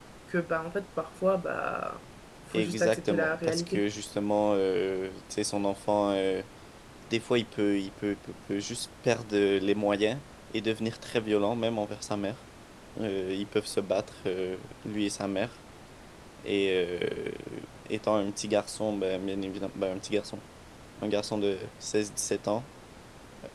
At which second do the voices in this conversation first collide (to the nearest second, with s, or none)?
3 s